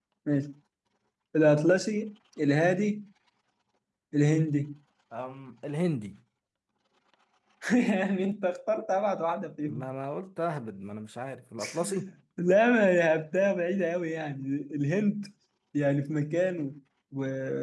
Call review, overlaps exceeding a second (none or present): none